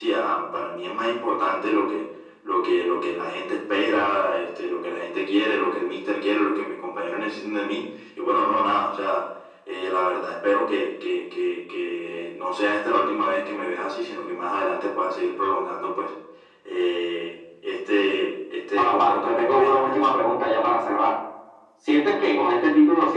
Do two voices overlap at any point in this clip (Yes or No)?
Yes